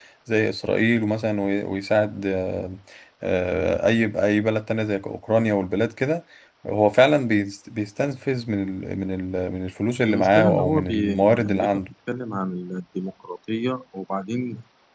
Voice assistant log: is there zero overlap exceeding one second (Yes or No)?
No